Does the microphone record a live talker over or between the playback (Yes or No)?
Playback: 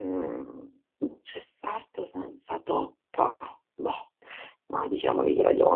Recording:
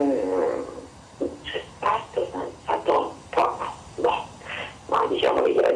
No